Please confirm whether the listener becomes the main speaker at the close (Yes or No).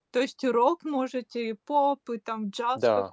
Yes